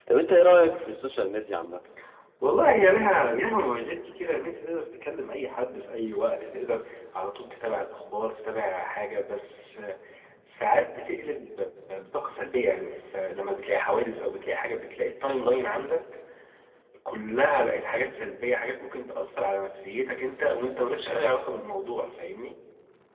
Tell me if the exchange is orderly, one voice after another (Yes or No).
Yes